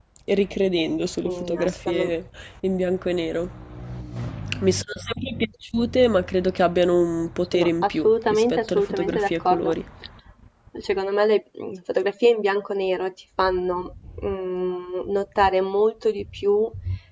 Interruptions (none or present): present